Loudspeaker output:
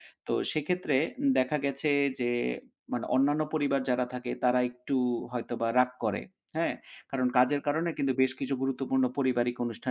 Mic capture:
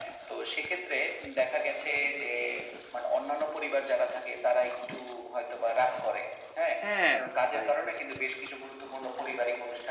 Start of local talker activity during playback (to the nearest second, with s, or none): 7 s